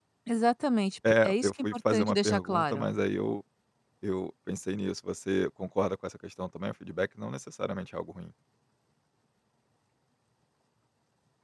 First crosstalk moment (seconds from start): 1.2 s

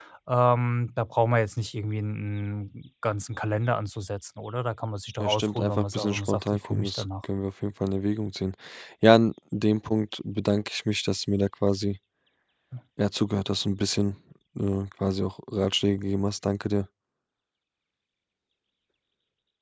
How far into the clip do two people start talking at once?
5.2 s

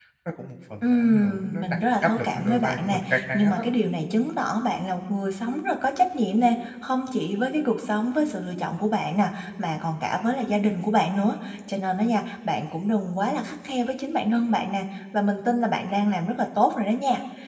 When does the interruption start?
0.8 s

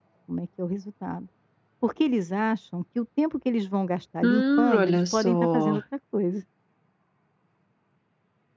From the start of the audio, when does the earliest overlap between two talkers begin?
4.2 s

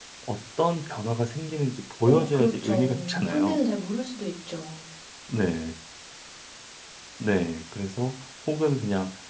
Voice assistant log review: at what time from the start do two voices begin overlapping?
2.1 s

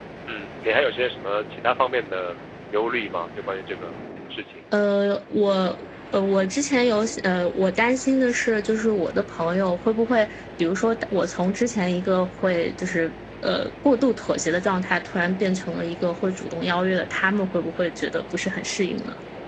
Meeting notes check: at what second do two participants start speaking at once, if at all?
none

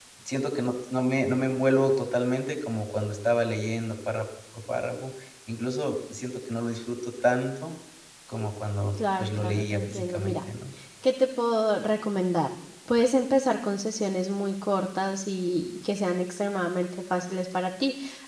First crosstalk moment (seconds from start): 9.0 s

